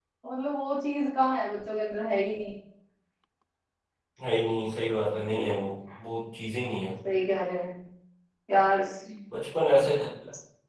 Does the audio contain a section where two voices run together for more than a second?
No

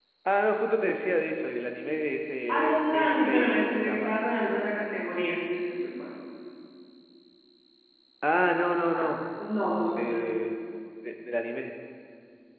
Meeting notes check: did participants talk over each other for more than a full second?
Yes, from 2.5 s

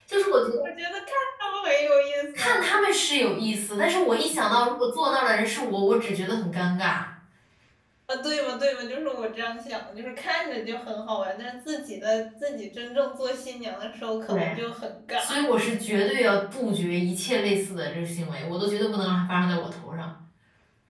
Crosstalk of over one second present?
No

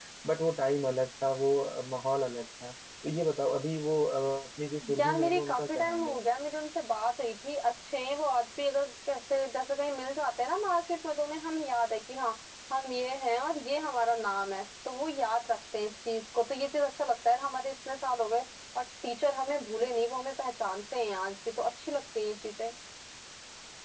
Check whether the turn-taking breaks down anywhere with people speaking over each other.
Yes, from 4.8 s

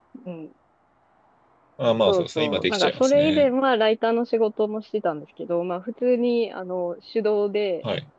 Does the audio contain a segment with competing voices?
Yes, from 2.1 s

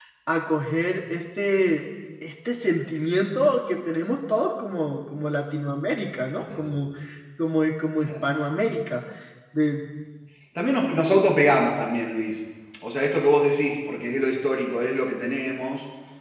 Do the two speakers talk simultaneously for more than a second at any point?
No

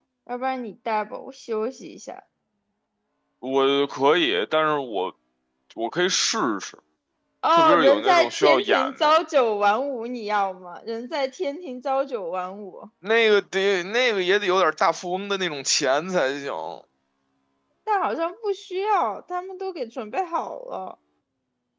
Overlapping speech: Yes, from 7.5 s

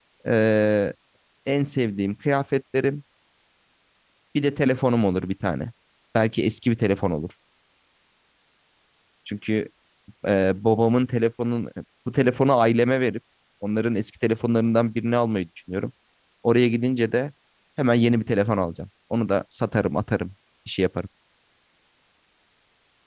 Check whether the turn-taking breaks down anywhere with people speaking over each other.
No

